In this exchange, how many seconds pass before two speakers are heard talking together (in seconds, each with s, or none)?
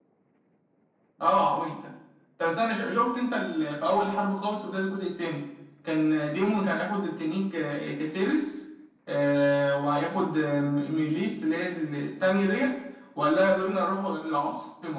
none